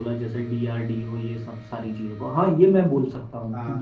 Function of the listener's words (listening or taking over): listening